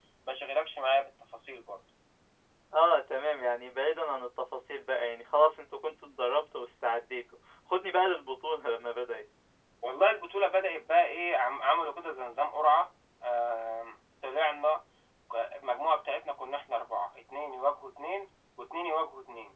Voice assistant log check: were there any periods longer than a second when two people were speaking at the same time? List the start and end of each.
none

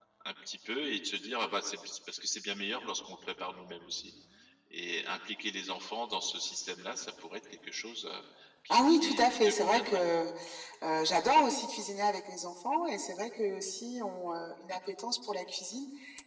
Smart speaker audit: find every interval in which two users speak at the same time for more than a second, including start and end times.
8.7-10.0

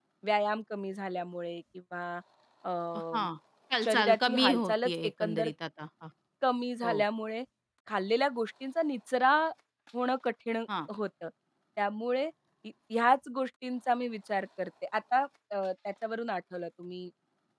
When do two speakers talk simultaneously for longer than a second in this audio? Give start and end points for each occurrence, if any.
3.8-5.5

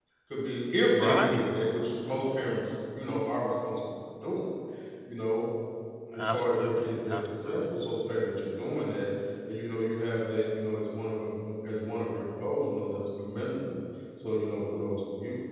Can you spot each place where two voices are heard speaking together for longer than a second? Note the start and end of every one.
6.2-7.7

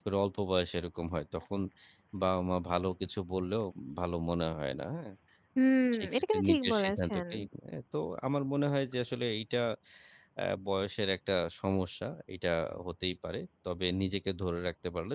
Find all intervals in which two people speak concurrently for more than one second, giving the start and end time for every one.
6.0-7.2

